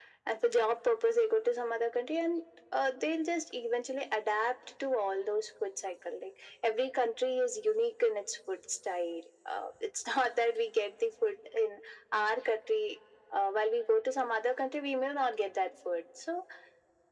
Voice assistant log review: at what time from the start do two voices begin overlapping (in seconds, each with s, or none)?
none